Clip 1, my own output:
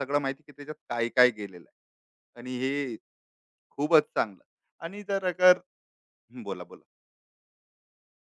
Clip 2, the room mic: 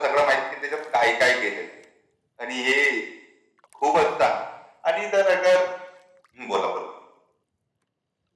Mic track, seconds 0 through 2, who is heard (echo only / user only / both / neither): echo only